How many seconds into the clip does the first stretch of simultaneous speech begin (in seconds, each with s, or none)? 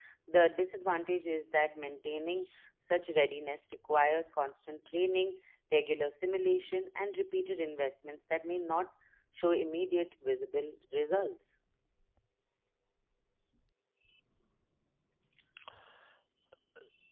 none